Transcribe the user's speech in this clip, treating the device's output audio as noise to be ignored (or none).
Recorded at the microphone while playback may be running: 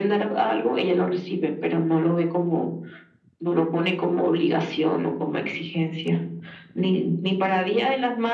none